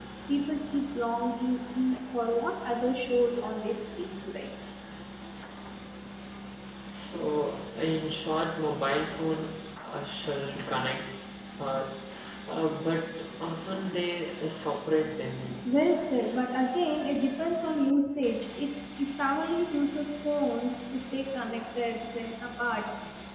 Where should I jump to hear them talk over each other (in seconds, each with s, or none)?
none